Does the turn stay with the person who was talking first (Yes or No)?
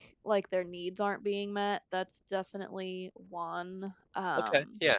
No